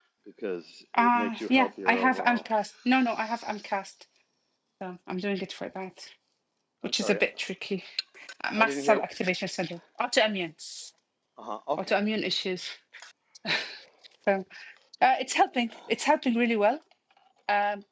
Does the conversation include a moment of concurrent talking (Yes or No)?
Yes